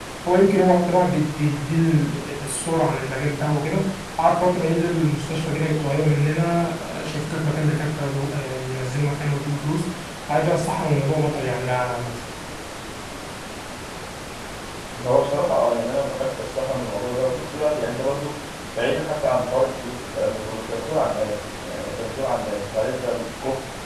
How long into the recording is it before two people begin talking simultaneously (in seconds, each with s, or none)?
none